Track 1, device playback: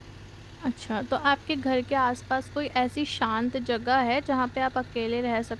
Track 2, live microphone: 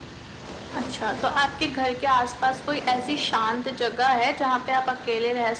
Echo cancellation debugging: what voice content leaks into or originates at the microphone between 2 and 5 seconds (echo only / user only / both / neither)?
echo only